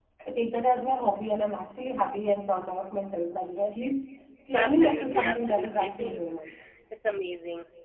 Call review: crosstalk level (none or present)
present